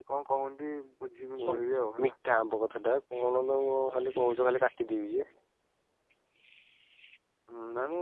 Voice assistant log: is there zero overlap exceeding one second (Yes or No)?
Yes